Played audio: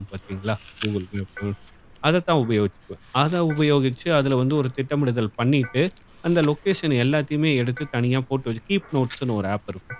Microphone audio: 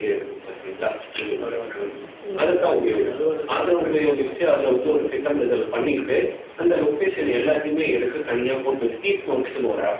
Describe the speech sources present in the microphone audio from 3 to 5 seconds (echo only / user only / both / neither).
both